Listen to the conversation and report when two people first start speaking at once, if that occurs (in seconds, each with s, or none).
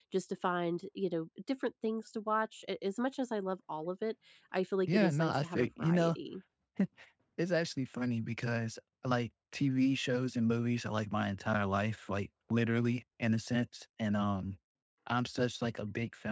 4.9 s